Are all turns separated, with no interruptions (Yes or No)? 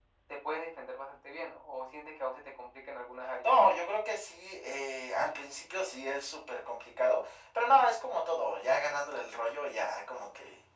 Yes